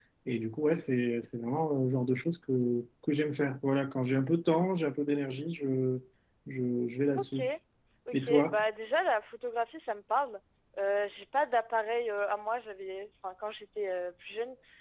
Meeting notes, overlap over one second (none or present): none